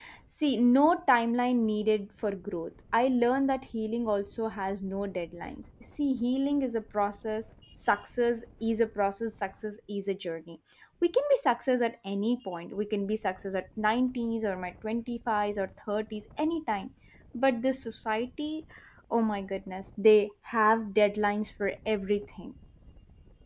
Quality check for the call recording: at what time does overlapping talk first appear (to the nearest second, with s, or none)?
none